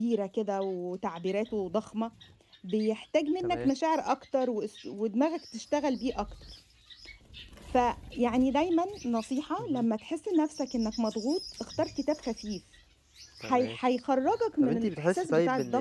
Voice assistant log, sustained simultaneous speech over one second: present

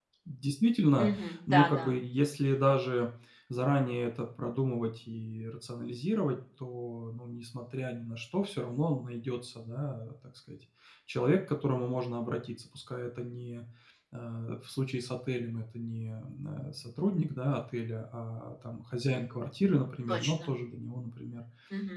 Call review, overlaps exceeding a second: none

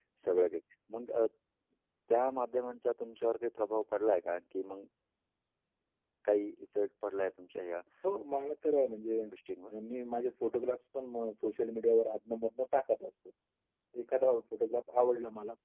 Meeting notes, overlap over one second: none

